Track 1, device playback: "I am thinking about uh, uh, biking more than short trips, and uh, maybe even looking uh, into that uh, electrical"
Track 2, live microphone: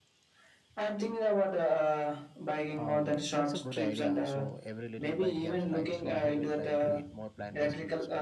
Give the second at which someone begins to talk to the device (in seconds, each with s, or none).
2.7 s